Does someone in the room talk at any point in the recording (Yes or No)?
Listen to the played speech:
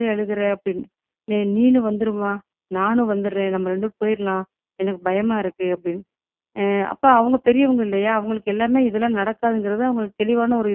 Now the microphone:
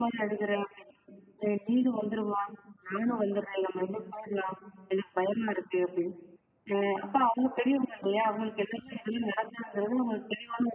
No